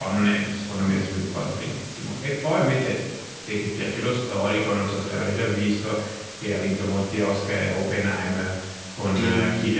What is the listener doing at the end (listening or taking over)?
taking over